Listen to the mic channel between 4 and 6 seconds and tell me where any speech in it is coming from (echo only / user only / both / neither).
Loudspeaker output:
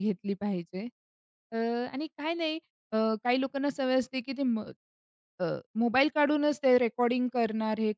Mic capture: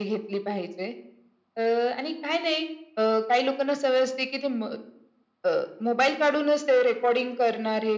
echo only